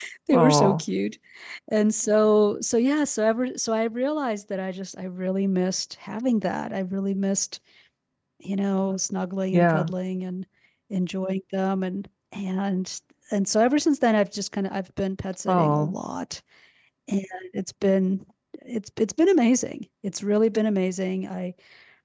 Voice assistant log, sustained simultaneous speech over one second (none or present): none